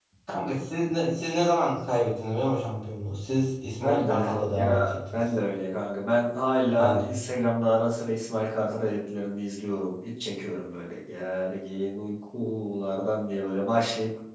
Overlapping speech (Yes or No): Yes